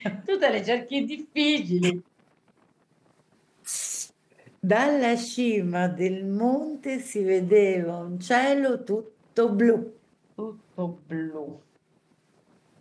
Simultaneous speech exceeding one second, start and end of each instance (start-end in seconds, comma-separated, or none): none